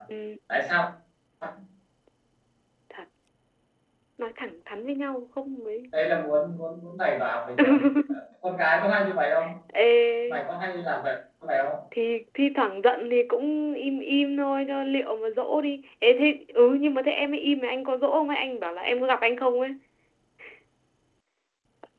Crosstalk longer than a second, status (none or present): none